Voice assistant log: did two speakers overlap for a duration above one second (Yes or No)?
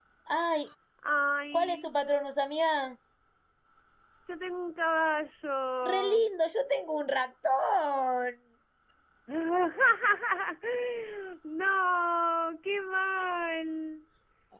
No